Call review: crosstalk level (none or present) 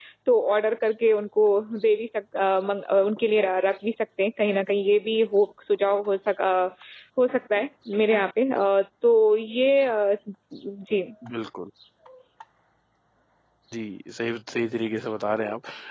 none